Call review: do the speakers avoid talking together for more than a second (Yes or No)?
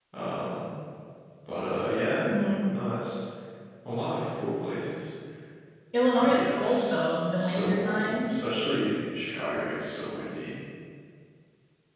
No